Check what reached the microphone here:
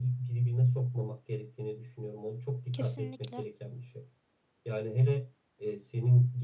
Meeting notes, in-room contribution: present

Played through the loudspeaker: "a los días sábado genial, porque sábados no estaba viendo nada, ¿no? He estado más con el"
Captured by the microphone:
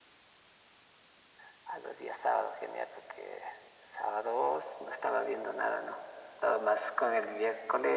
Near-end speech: none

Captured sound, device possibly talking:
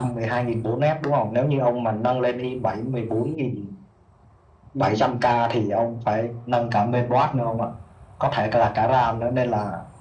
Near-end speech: none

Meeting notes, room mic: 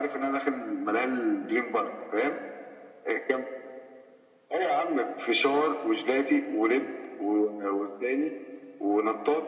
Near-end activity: none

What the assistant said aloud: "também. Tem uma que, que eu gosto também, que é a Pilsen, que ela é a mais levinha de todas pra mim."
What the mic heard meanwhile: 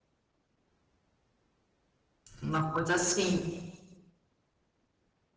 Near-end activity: present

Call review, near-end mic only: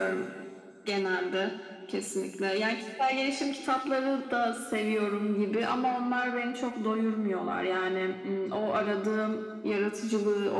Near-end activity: none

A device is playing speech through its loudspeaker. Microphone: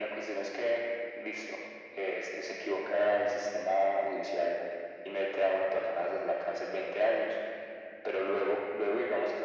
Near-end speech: none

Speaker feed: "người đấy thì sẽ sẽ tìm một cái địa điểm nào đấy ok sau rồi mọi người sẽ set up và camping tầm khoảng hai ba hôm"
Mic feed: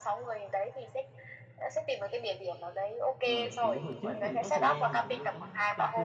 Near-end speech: present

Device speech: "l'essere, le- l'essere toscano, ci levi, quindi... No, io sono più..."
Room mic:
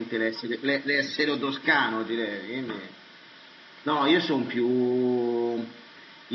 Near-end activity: none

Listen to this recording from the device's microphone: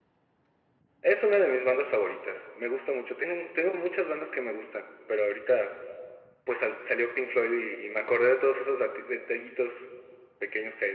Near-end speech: none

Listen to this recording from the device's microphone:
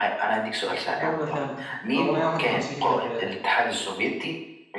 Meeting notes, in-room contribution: present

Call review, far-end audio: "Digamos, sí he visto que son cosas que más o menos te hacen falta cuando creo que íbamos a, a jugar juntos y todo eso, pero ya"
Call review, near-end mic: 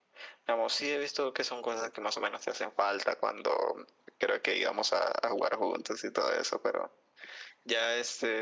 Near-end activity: none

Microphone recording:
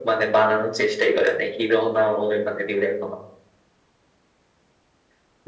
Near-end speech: none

